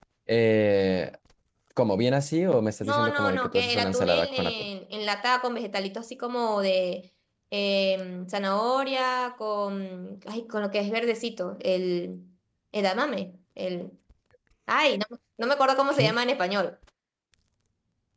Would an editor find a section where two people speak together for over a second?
Yes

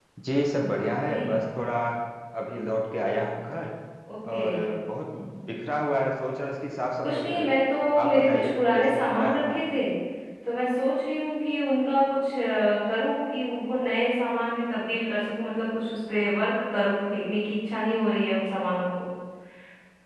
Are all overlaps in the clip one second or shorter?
No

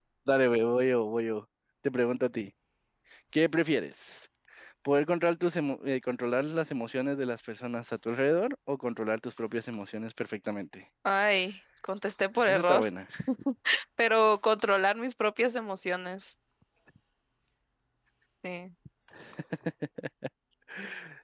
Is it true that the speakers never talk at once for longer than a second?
Yes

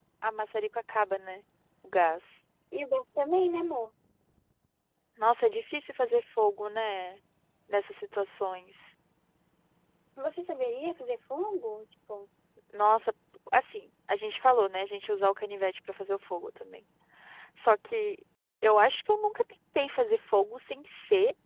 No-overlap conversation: Yes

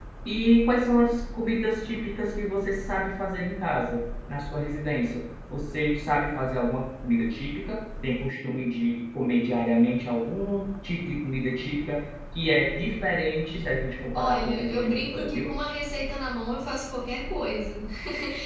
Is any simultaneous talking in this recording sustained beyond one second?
Yes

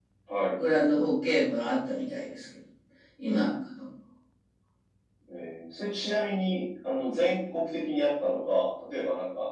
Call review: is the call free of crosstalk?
Yes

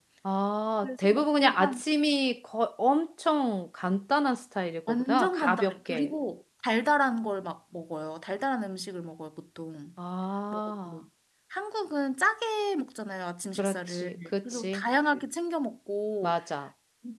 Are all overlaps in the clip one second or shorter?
No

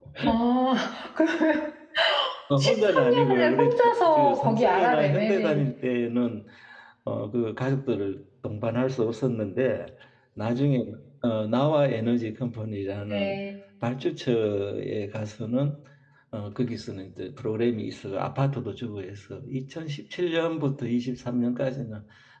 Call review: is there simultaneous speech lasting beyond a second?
Yes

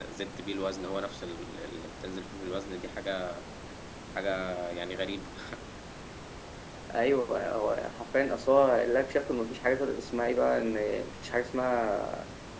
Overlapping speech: No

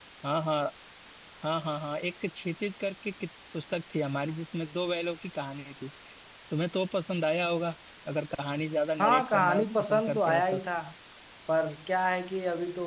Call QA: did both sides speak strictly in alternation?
No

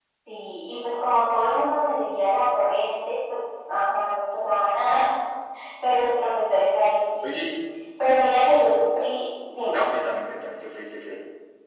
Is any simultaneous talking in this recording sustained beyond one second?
No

